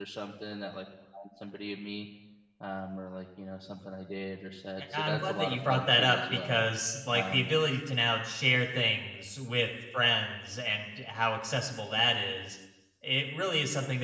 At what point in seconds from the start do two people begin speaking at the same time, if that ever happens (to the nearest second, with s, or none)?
5 s